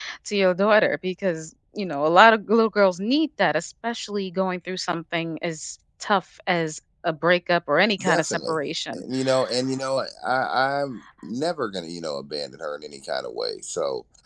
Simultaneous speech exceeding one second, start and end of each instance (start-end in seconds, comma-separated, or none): none